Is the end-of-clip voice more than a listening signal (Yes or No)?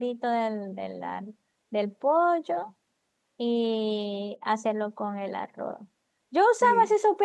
No